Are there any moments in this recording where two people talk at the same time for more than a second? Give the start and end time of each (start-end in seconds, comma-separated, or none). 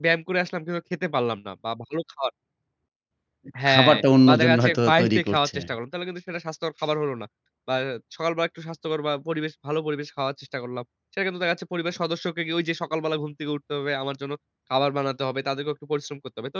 3.7-5.6